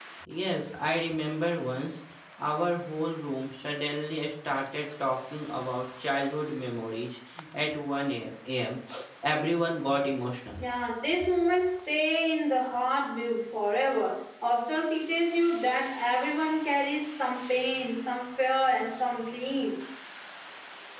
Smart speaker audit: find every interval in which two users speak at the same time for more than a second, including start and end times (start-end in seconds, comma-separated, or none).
none